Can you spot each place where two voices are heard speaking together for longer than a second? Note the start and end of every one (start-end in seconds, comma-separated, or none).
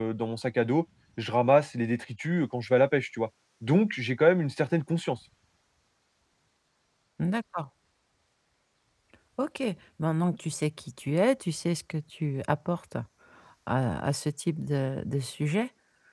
none